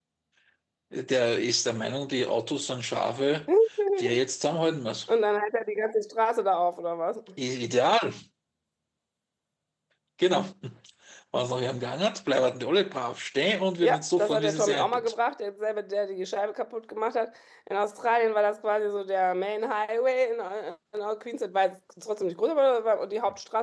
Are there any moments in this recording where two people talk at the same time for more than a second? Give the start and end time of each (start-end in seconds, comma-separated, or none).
13.8-15.1